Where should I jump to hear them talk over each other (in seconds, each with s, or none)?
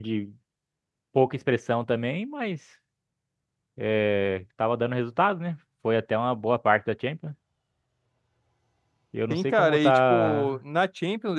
9.3 s